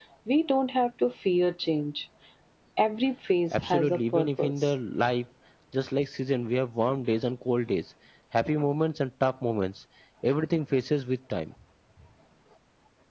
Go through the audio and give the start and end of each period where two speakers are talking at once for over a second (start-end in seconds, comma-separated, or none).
3.5-4.7